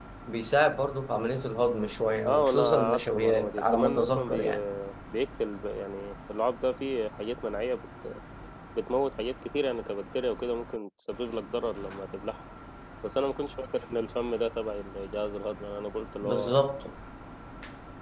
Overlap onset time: 2.3 s

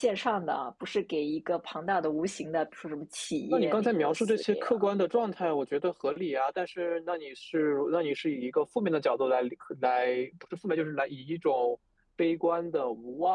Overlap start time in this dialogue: 3.5 s

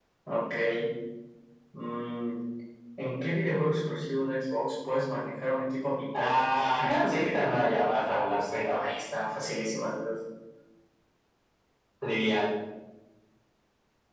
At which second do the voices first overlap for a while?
6.1 s

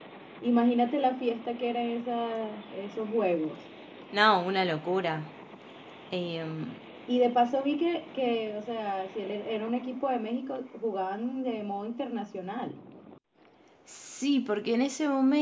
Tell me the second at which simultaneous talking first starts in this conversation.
none

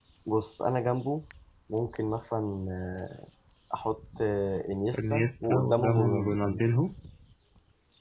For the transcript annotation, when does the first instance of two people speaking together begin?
4.9 s

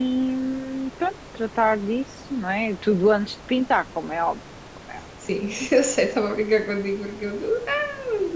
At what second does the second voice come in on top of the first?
none

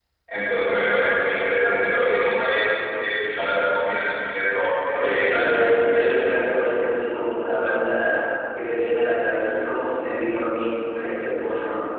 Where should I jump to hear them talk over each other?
4.9 s

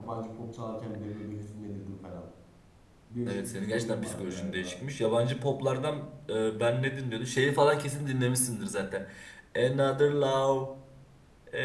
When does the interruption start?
3.3 s

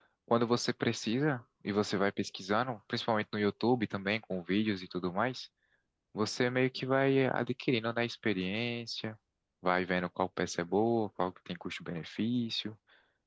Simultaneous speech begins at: none

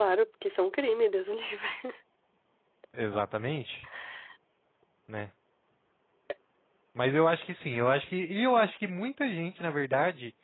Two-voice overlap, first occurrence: none

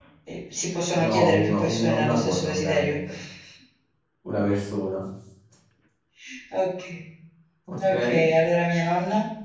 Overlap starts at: 1.0 s

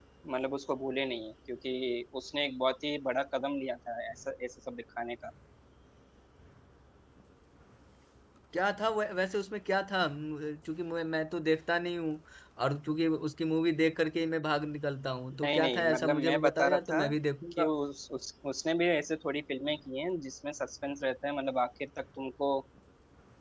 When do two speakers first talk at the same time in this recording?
15.4 s

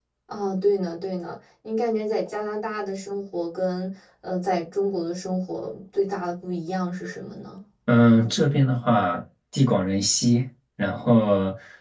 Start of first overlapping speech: none

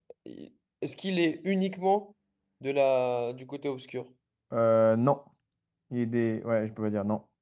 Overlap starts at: none

